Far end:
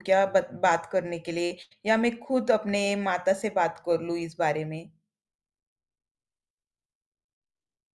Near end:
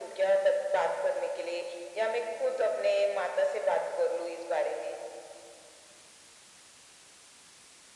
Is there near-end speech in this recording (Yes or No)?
No